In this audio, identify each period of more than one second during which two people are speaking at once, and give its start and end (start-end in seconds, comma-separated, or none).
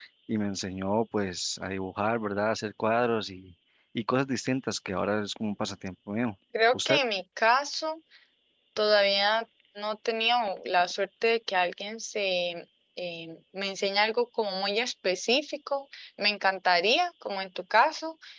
none